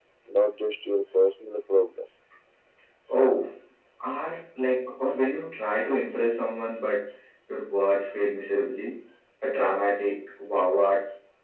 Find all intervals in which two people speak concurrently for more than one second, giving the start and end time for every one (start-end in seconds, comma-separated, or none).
none